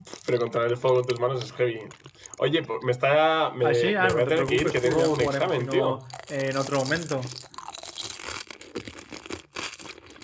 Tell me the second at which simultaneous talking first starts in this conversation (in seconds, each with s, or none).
3.6 s